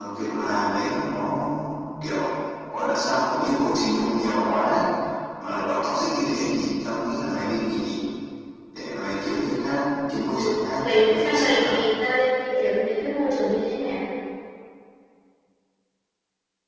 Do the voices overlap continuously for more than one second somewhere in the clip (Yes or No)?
Yes